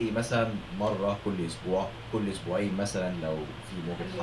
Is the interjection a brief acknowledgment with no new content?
No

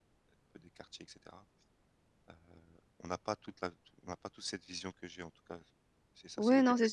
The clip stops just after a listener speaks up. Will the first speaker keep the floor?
No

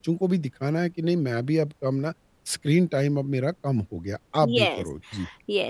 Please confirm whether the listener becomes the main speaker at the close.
Yes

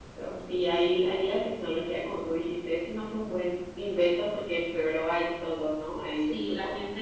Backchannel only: No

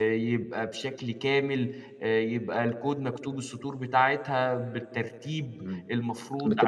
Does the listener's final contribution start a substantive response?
Yes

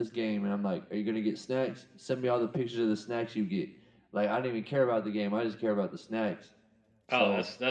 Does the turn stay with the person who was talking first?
No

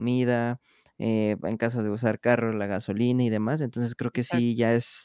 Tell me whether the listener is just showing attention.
Yes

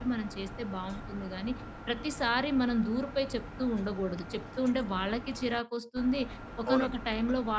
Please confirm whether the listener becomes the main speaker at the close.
No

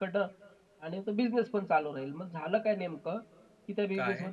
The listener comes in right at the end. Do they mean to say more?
No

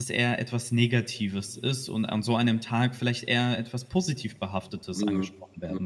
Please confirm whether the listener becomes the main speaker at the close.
Yes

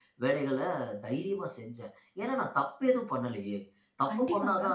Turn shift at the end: No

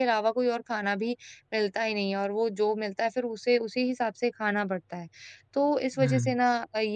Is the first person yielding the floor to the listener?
No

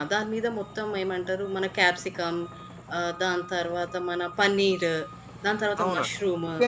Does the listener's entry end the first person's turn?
Yes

